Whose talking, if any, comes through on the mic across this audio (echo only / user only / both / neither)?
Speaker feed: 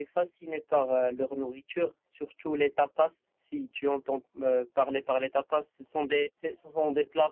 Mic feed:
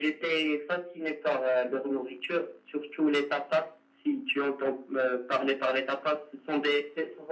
echo only